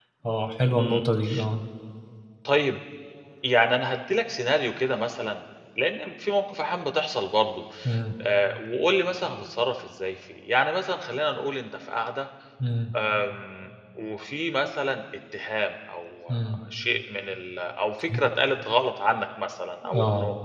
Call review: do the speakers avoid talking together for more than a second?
Yes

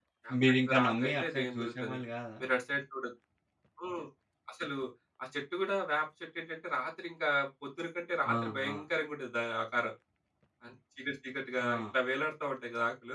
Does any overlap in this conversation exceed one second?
Yes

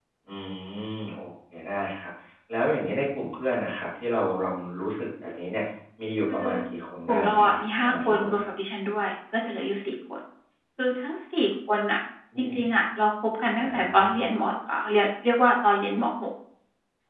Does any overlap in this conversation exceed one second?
Yes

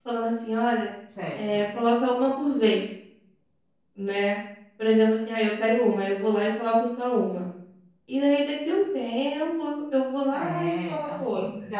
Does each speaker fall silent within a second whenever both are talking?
No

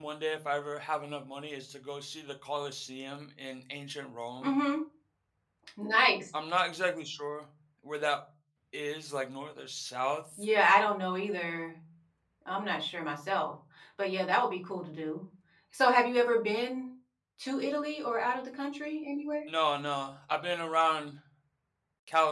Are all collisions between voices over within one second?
Yes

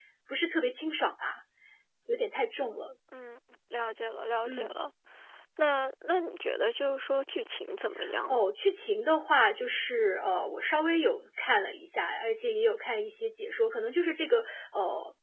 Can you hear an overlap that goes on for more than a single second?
No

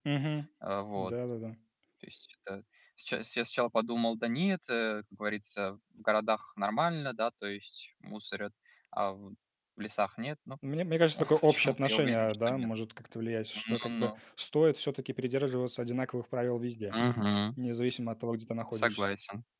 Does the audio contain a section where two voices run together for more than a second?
Yes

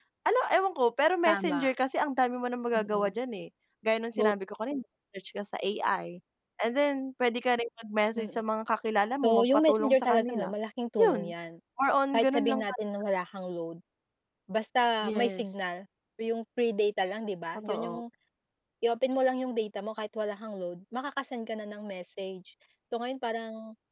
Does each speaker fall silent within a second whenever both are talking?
No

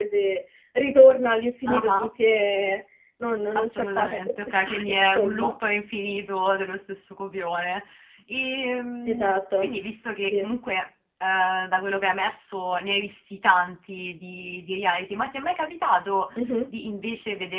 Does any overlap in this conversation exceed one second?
Yes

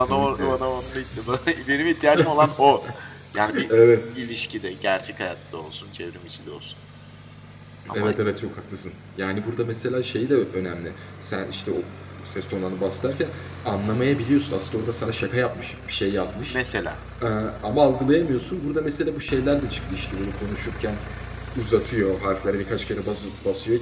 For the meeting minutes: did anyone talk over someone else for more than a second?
No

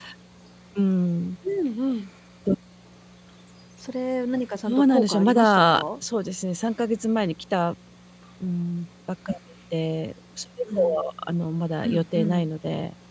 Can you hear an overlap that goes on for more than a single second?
Yes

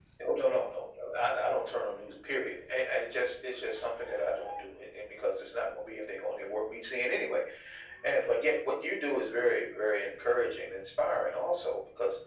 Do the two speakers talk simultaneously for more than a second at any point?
No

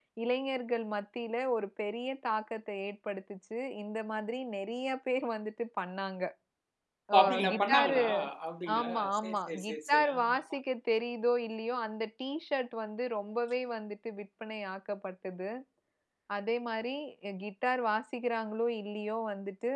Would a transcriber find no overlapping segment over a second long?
No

